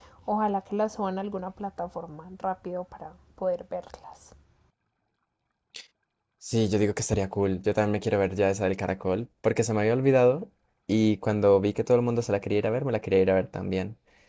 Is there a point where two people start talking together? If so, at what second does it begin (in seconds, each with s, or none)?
none